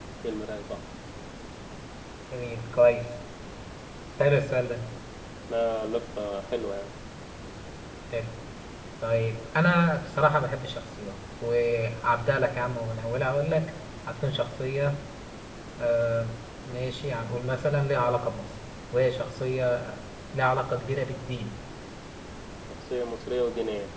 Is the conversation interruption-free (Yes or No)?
Yes